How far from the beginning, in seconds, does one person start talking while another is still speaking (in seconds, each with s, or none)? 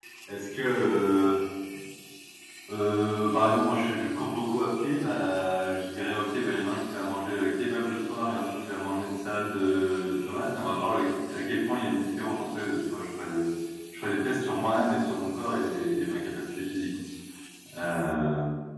none